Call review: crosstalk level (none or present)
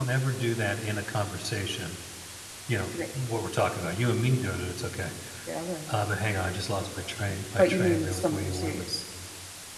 present